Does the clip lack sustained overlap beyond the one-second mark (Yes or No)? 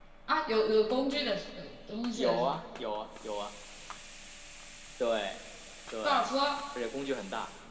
Yes